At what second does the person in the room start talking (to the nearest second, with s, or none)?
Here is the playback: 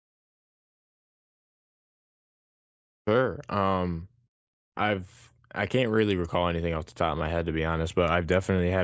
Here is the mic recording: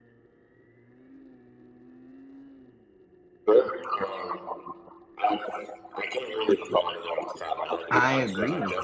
8 s